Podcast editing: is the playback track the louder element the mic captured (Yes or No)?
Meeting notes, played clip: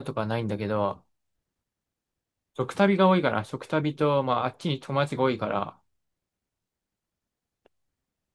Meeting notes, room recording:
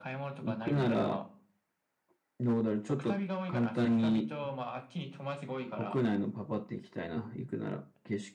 No